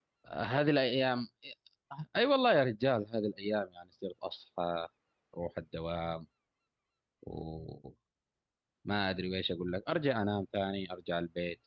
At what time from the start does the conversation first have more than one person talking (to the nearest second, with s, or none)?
none